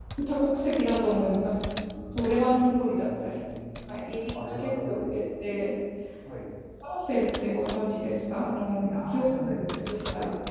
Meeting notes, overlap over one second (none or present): present